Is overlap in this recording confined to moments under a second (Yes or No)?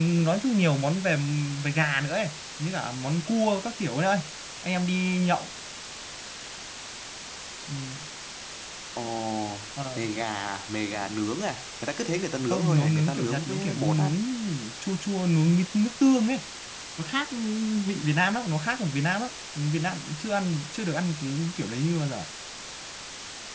No